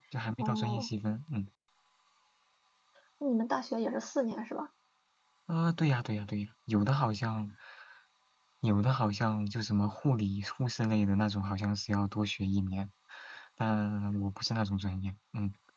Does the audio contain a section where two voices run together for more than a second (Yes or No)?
No